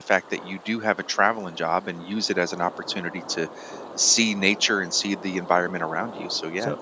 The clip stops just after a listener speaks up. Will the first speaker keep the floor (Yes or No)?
No